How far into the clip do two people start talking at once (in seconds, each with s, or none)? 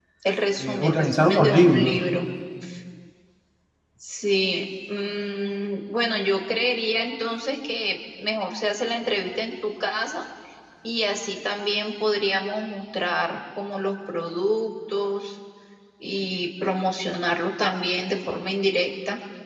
0.6 s